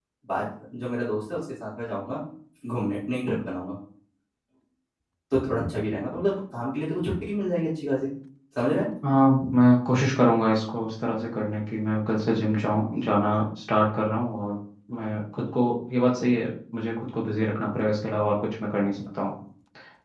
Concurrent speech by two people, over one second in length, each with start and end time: none

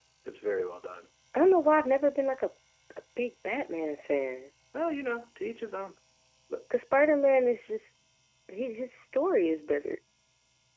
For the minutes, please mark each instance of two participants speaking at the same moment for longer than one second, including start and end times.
none

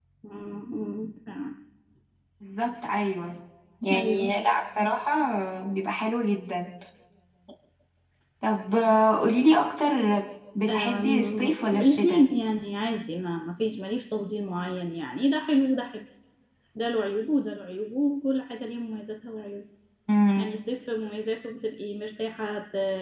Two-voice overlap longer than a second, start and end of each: 10.7-12.2

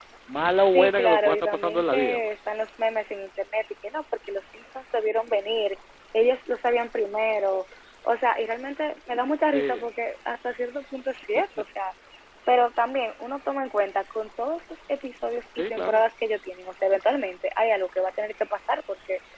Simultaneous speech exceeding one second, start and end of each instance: 0.7-2.2

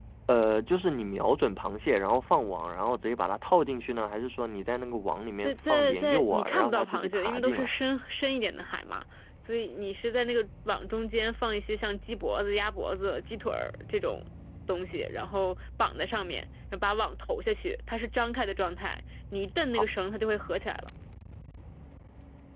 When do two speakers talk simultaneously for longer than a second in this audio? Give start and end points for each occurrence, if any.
5.4-7.7

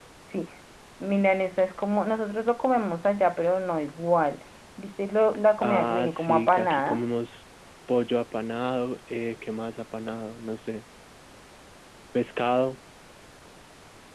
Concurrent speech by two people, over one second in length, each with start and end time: 5.6-7.0

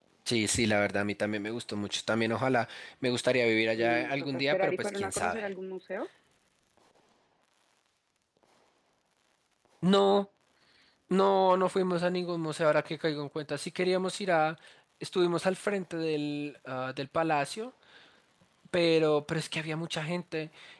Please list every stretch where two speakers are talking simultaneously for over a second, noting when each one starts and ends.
3.8-5.5

